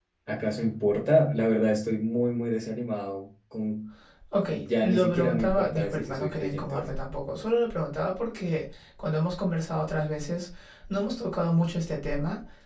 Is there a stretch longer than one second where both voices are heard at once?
Yes, from 4.5 s

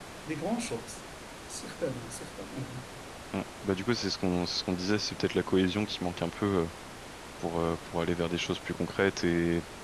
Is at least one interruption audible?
No

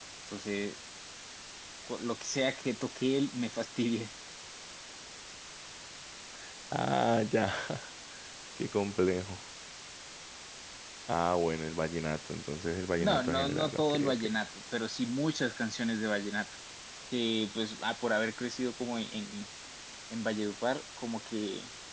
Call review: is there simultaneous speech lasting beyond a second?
Yes, from 13.0 s

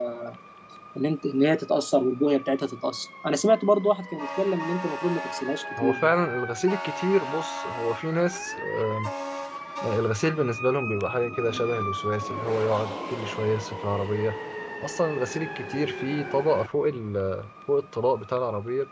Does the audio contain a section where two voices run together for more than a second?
No

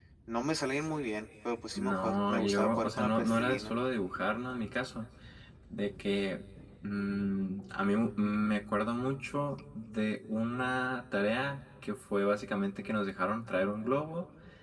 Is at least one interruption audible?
Yes, from 1.8 s

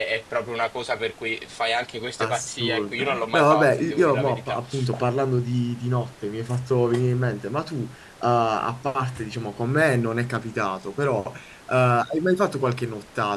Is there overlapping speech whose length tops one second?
Yes, from 2.2 s

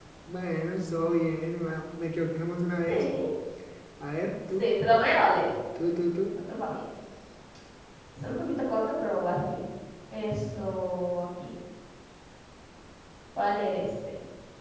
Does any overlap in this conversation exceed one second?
No

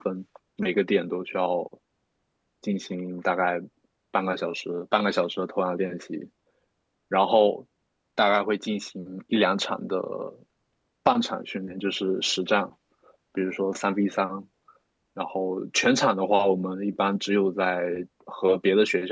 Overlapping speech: No

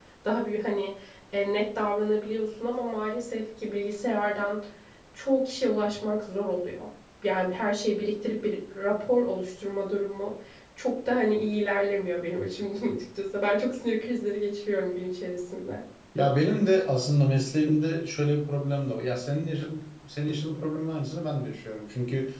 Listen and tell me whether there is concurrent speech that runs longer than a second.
No

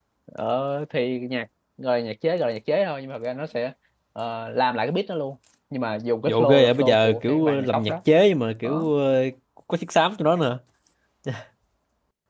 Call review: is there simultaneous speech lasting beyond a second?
Yes, from 6.3 s

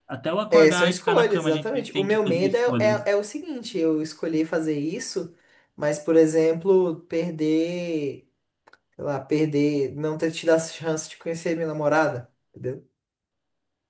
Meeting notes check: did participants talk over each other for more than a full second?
Yes, from 0.5 s

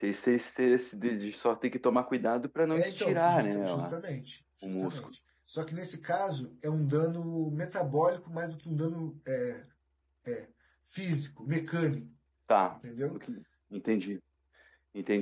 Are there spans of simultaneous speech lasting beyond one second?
Yes, from 2.7 s

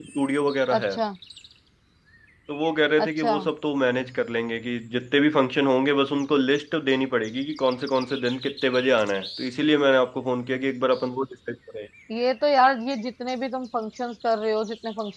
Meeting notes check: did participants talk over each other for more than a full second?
No

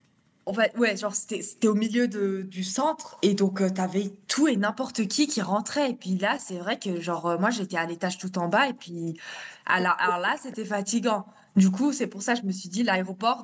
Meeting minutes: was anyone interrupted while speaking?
No

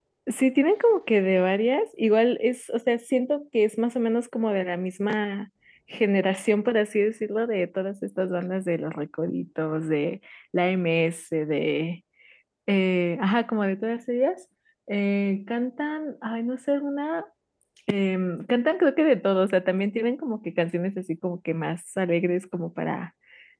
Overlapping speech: No

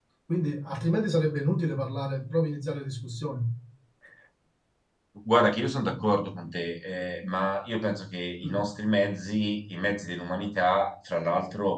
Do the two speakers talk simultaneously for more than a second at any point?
No

